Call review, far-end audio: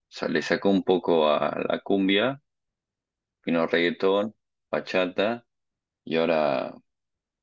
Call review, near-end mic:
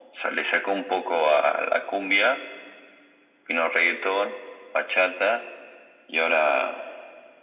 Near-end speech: none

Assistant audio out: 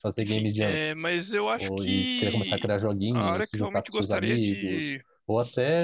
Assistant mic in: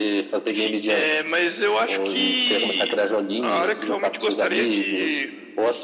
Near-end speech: none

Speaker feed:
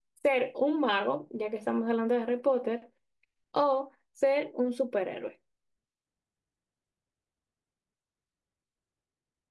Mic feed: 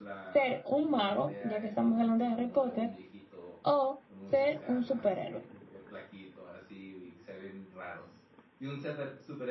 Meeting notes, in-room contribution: present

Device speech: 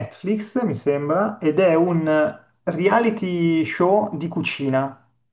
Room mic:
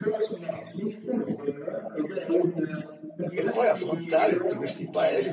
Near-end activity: present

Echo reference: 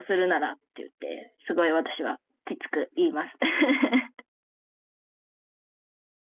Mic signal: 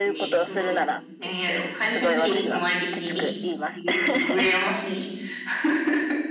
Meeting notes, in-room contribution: present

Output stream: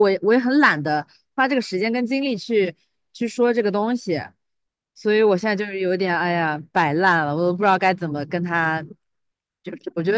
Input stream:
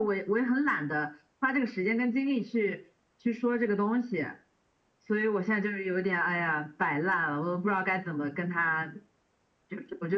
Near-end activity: none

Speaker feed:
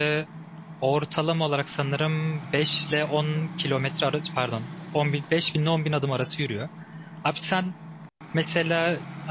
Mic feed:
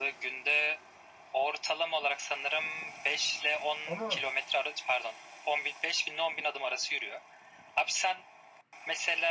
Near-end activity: present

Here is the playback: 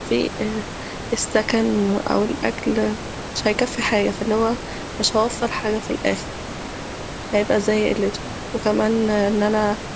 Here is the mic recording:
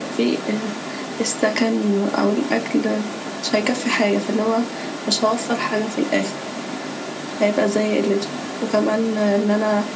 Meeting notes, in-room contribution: none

